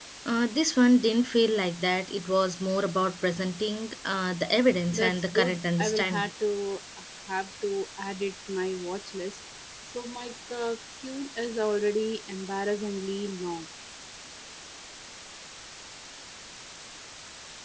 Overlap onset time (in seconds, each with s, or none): 4.9 s